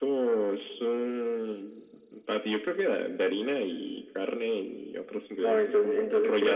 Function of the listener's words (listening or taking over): taking over